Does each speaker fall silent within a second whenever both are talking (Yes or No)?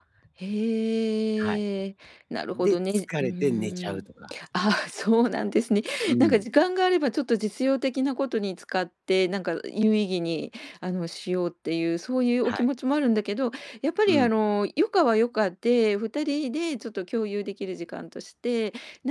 No